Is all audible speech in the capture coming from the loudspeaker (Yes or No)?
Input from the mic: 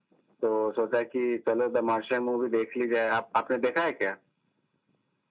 Yes